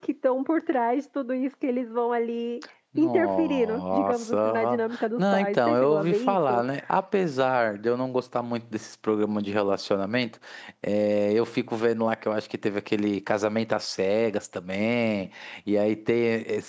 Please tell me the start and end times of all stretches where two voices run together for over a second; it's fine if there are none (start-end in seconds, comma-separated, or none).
3.0-6.6